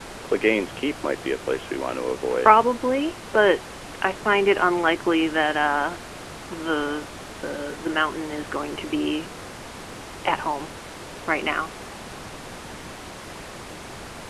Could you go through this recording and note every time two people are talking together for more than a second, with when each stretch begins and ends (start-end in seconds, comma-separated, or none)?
none